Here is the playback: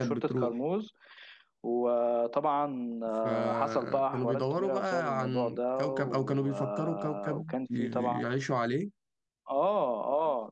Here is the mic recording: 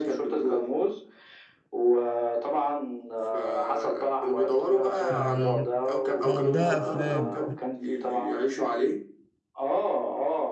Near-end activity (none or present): present